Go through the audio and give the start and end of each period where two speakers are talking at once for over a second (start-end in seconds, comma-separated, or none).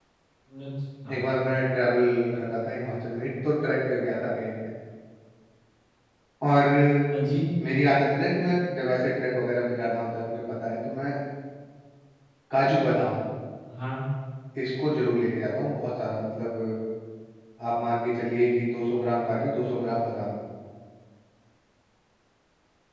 none